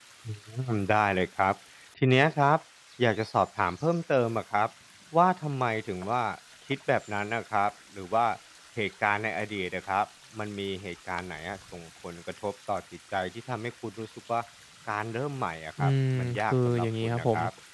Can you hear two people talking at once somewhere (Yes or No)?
Yes